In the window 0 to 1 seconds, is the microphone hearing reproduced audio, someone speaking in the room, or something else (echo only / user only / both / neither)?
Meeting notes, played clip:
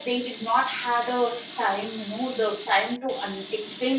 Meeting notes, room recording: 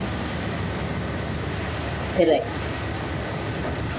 neither